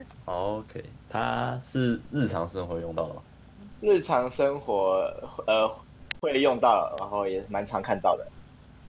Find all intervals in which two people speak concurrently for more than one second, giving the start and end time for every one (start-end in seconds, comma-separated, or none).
none